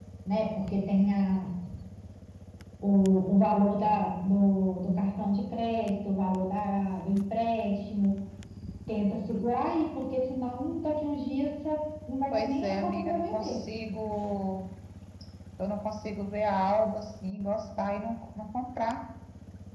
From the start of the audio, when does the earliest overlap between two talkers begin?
12 s

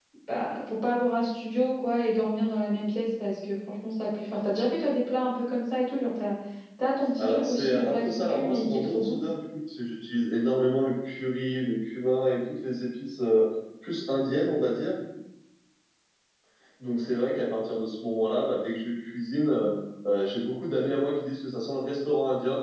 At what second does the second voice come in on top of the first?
7 s

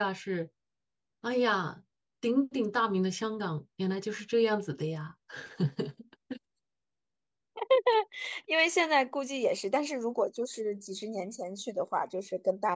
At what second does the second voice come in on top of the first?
none

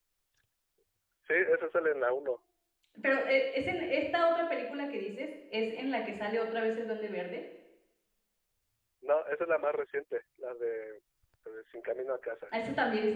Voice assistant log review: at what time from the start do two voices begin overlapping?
none

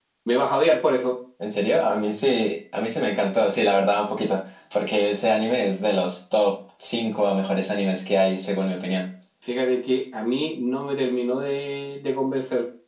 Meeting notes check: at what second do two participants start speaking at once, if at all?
none

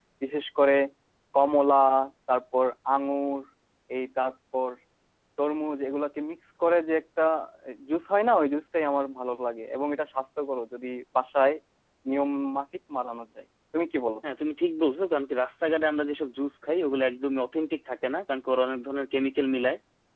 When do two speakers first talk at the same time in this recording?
none

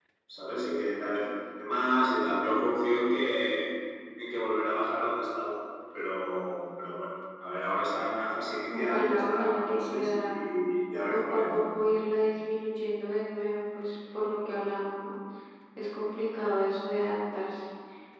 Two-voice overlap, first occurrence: 9 s

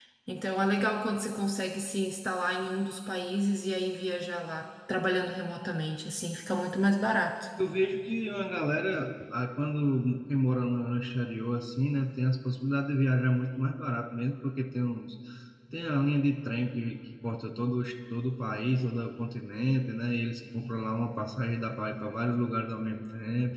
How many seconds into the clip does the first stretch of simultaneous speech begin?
none

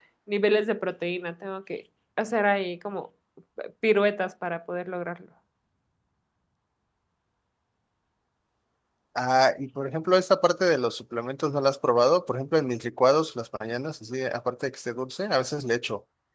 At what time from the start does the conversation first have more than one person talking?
none

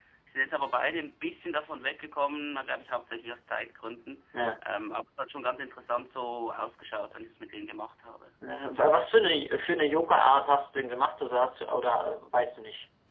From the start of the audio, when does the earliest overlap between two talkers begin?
none

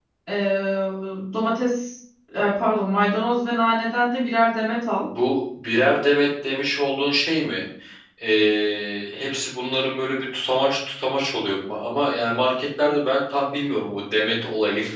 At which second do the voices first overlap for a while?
none

